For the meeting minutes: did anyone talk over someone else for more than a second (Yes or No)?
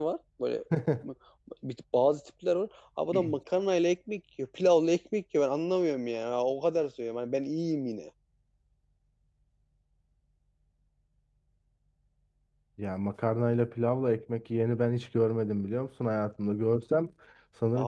No